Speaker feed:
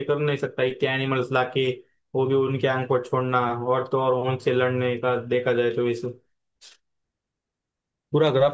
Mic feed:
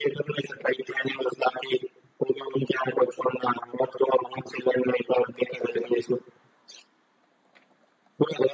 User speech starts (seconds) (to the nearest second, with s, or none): none